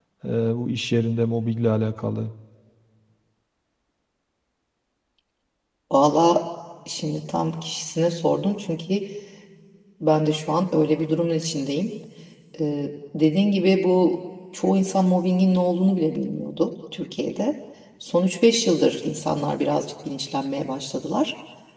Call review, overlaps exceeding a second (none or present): none